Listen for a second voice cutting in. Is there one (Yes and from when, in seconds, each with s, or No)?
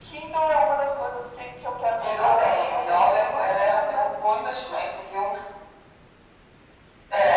Yes, from 2.0 s